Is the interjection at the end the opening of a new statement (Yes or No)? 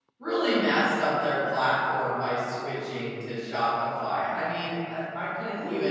No